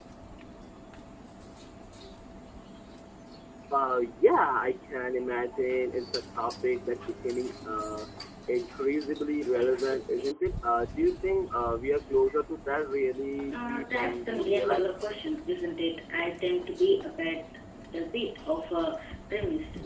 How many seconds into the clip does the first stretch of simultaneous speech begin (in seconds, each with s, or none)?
13.5 s